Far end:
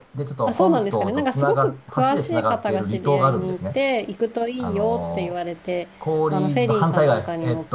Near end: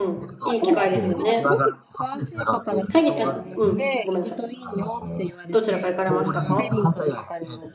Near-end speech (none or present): present